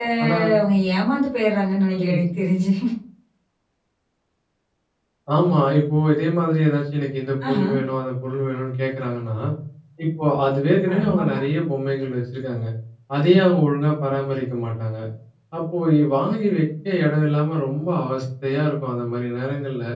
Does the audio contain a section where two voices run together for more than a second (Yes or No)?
No